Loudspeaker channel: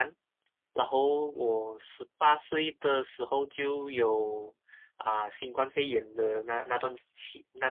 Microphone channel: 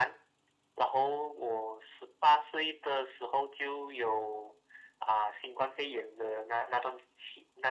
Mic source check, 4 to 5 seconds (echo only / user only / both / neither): echo only